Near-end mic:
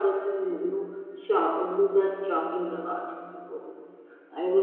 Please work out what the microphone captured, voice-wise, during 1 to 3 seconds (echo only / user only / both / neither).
echo only